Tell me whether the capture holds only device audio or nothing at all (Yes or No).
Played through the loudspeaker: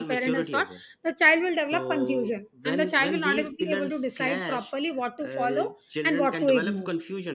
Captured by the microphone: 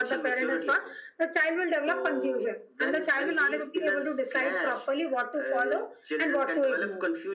Yes